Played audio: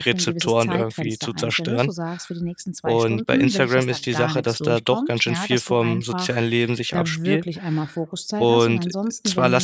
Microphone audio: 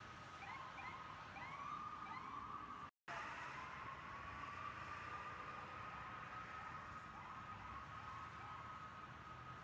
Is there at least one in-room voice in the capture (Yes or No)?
No